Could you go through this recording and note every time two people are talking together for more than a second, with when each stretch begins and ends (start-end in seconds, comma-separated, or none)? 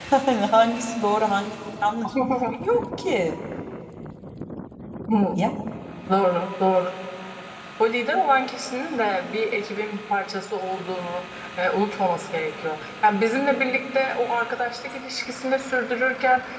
none